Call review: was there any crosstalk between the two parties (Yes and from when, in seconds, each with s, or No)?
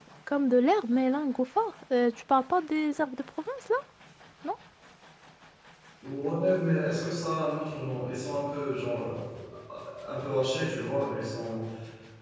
No